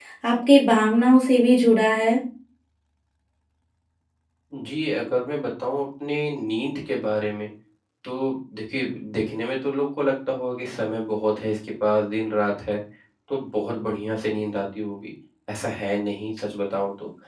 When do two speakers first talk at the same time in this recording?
none

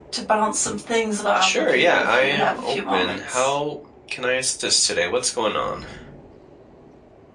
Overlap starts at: 1.4 s

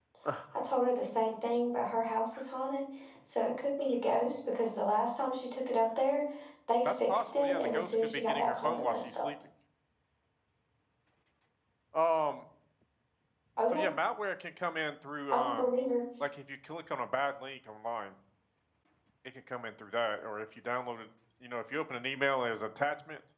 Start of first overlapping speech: 6.8 s

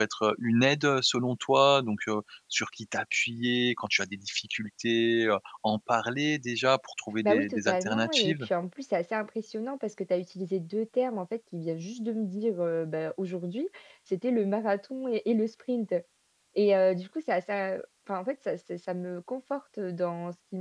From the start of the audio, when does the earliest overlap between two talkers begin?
7.2 s

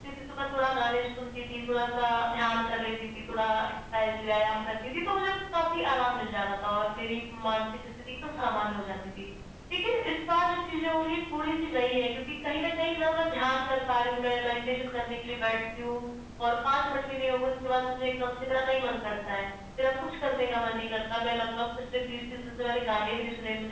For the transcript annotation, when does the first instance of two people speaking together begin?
none

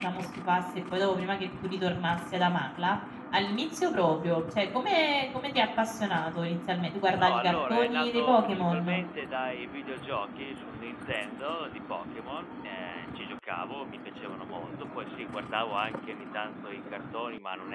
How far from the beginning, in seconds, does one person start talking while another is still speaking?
7.1 s

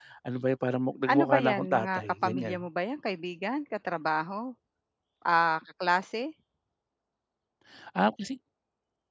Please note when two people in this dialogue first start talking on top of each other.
1.1 s

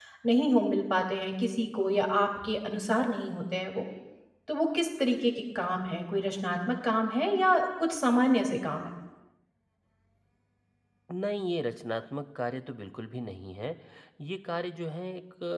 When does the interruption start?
none

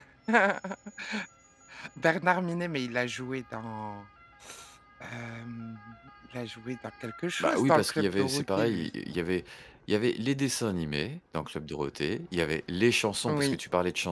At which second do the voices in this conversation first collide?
7.4 s

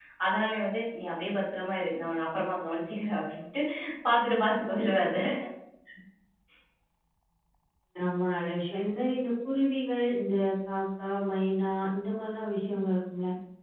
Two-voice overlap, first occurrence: none

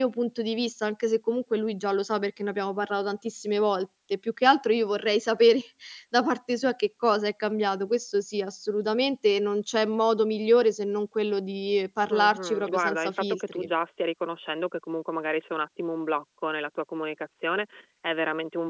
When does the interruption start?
12.1 s

